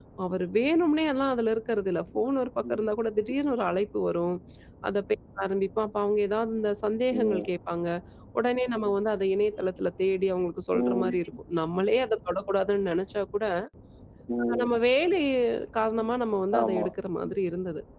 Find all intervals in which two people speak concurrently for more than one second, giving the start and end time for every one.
none

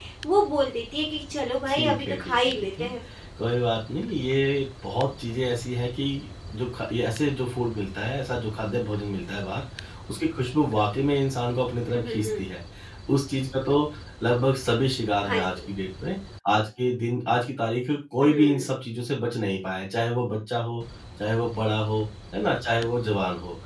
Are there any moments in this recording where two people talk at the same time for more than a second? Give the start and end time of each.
1.7-2.9

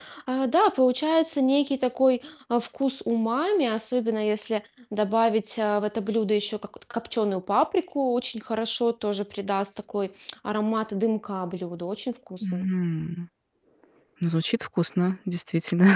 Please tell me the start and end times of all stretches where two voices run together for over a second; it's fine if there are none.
none

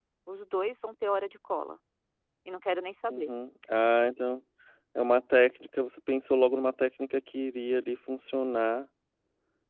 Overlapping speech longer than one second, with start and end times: none

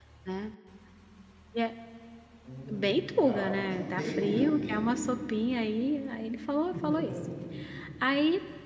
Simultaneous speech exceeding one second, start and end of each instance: 2.7-4.8

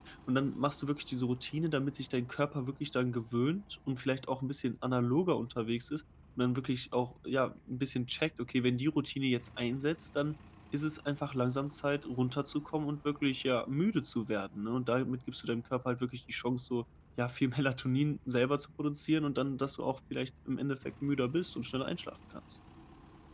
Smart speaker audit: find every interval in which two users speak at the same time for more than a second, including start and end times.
none

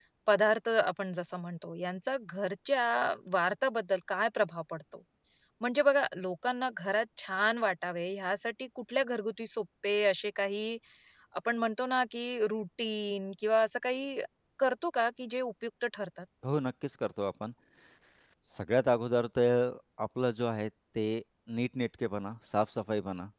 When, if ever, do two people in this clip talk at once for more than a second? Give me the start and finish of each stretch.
none

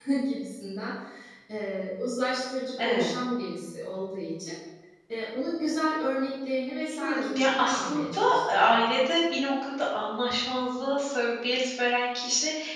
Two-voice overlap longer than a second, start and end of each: 7.0-8.7

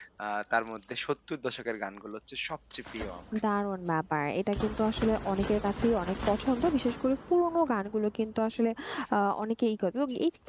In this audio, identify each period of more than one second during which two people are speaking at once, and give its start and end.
none

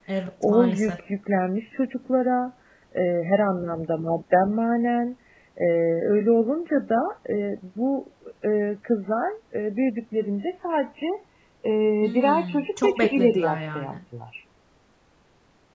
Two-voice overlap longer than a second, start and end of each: 12.0-13.9

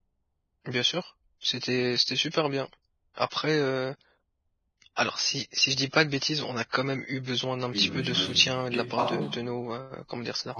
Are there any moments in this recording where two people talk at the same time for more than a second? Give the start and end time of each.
7.7-9.3

